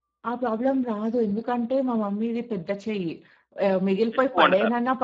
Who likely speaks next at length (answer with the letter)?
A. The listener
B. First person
B